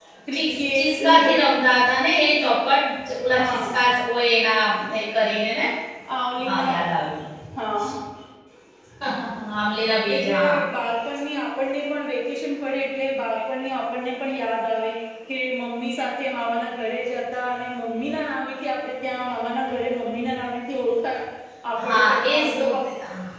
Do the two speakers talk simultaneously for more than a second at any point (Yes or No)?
Yes